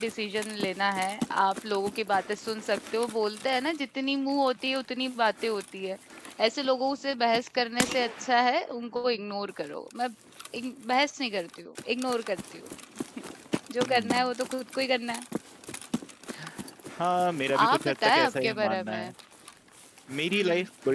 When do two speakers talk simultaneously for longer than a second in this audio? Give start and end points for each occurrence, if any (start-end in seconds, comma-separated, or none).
17.6-19.1